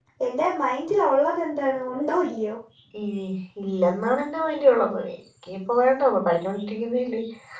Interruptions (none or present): none